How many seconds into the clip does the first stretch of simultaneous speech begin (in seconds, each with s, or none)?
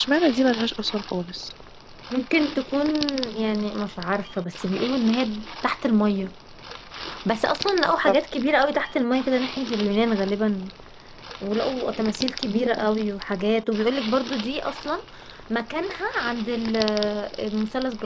none